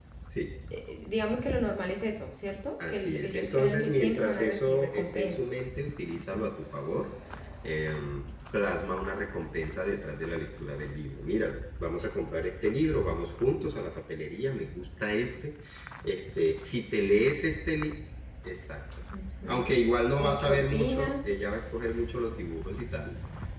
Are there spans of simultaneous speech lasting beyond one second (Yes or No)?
Yes